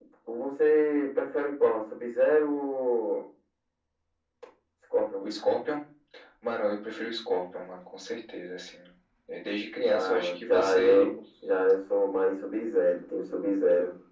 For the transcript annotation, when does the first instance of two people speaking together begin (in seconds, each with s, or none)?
9.8 s